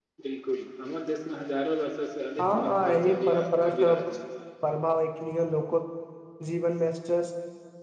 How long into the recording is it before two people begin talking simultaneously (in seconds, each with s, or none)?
2.4 s